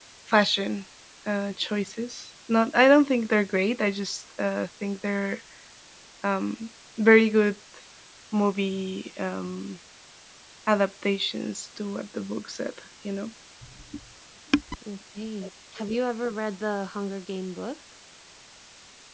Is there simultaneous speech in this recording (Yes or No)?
No